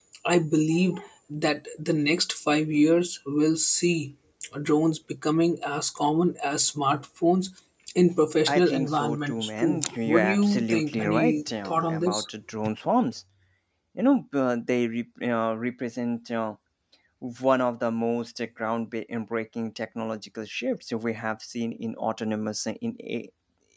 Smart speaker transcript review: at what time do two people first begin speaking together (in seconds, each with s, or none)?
8.5 s